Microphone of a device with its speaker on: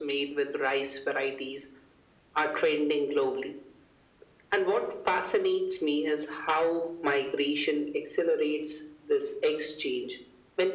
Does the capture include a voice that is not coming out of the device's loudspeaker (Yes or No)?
No